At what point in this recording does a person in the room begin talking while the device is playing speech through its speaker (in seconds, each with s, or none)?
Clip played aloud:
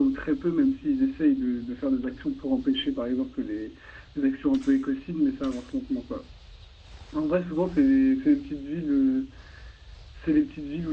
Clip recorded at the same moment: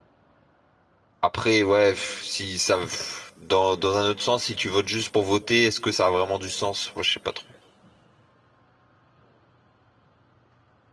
1.2 s